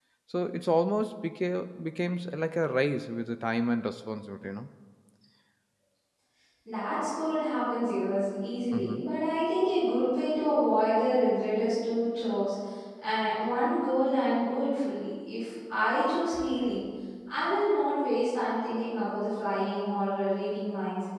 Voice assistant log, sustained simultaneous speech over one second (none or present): none